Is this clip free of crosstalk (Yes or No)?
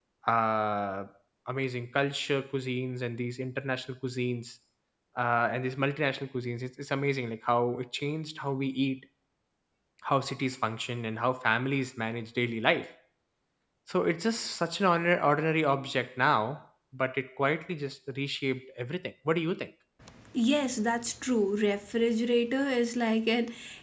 Yes